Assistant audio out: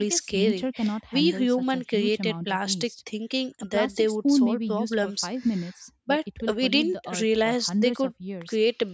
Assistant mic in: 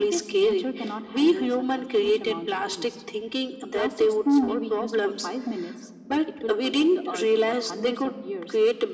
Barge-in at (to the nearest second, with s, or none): none